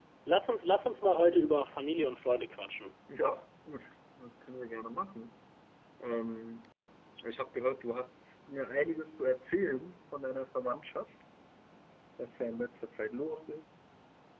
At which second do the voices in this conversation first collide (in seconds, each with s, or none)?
none